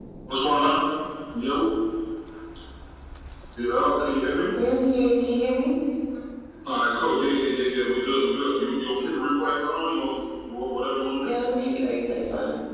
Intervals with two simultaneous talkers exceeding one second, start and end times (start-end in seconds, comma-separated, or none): none